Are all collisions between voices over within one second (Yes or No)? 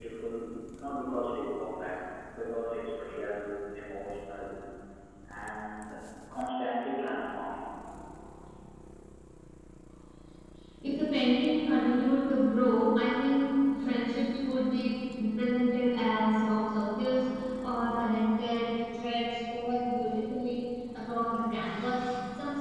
Yes